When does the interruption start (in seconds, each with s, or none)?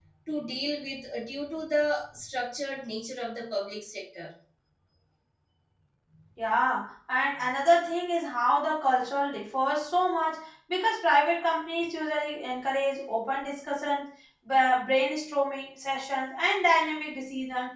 none